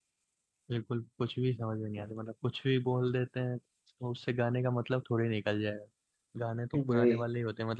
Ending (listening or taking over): listening